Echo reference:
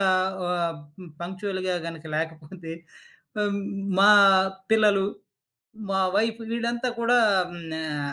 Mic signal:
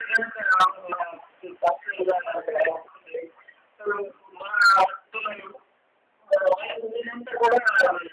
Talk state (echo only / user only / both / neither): echo only